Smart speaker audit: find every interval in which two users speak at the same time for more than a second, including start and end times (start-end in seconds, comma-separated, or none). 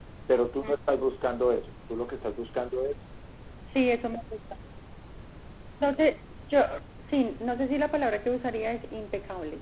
none